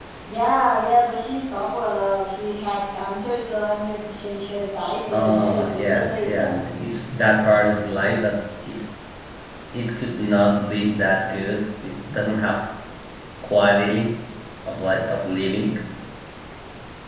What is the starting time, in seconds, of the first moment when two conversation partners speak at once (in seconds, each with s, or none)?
5.1 s